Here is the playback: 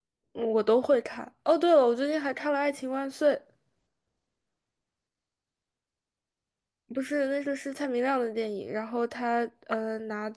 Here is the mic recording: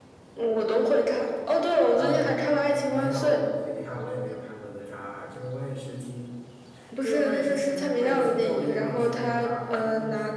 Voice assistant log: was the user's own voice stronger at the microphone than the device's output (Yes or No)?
No